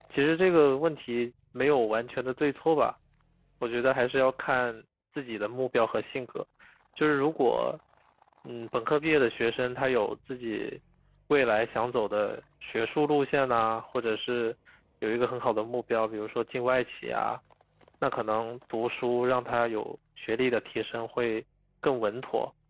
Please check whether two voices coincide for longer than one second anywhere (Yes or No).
No